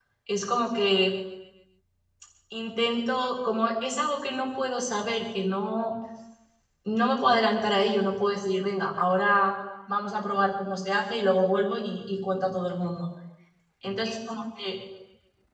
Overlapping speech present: No

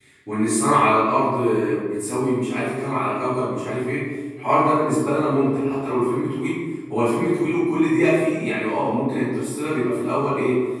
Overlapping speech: No

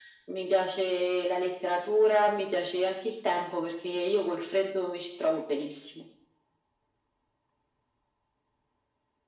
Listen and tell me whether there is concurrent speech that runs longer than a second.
No

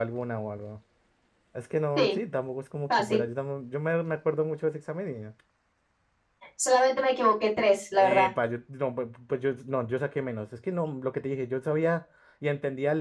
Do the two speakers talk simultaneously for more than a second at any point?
No

